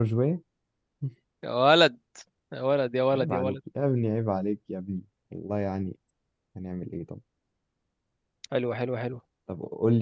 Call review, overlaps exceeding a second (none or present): none